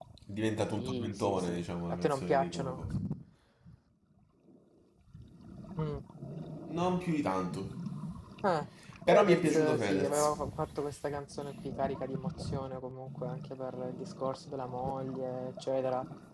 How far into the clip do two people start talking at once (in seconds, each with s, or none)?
0.8 s